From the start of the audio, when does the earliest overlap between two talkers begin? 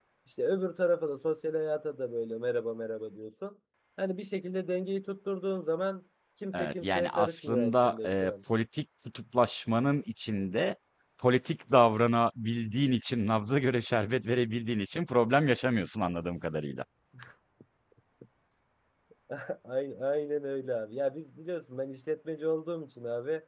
6.5 s

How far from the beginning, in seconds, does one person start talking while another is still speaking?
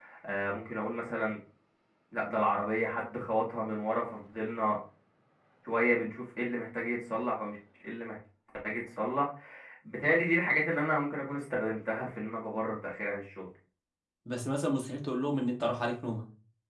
none

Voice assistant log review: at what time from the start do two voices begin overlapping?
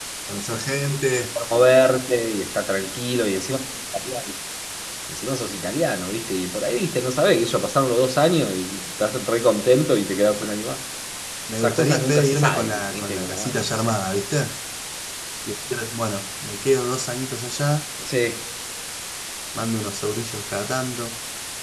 11.6 s

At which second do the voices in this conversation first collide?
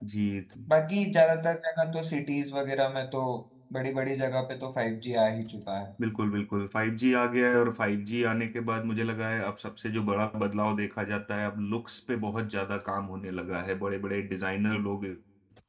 none

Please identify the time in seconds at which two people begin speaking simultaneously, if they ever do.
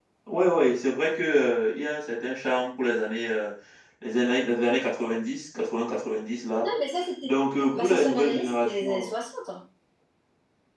7.7 s

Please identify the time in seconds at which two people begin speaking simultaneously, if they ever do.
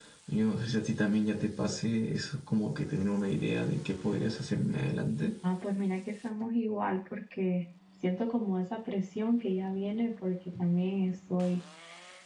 none

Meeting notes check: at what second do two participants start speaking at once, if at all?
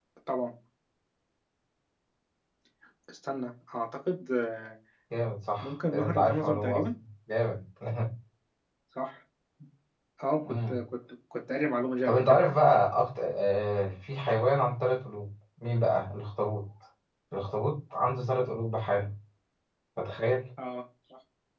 5.6 s

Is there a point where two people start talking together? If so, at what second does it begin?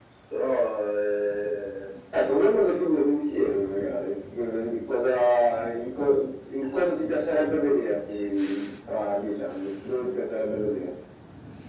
none

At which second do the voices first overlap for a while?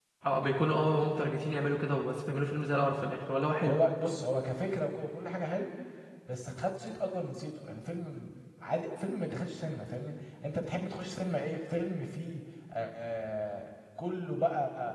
none

